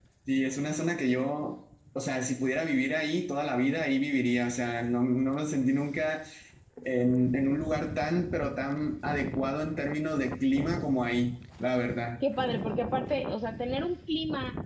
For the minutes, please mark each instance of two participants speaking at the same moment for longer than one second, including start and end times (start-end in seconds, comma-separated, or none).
none